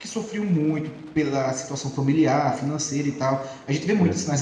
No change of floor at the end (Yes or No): Yes